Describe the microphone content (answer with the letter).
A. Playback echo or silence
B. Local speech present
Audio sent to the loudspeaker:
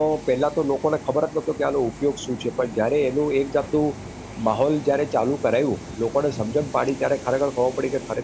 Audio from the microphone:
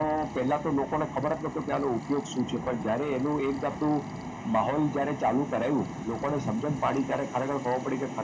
A